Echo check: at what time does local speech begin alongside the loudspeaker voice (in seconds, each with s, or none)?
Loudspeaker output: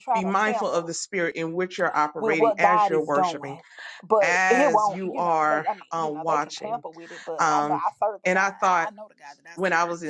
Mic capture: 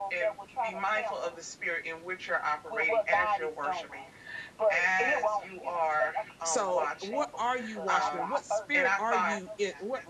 6.4 s